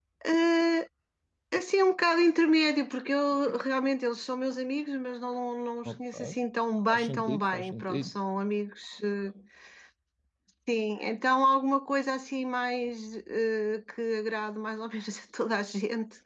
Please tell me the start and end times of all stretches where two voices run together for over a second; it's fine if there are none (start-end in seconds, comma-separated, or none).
6.9-8.2